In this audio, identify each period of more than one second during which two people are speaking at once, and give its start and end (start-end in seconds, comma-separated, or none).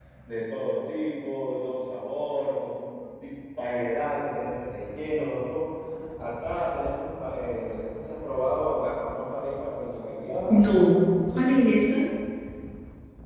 none